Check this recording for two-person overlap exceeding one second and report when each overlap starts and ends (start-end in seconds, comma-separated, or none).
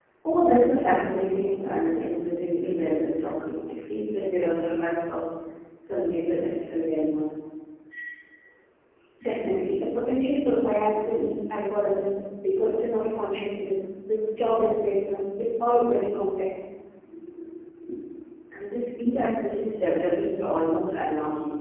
none